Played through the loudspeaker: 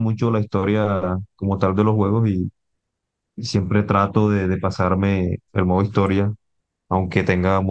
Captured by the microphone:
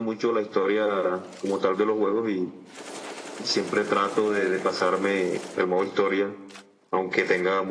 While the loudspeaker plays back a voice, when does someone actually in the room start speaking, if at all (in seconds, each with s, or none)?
4.2 s